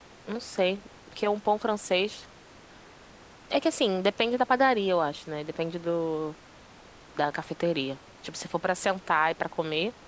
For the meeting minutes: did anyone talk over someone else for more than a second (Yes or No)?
No